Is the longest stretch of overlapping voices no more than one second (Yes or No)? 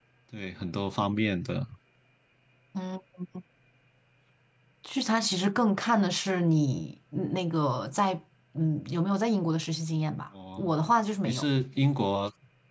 Yes